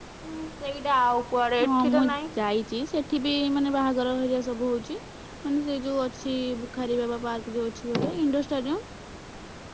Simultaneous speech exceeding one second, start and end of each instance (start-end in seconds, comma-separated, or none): none